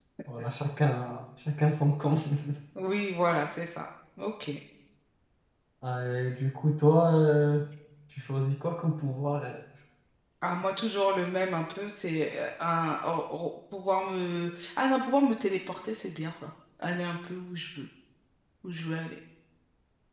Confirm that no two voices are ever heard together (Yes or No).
Yes